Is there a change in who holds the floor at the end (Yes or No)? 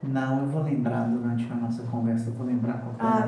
Yes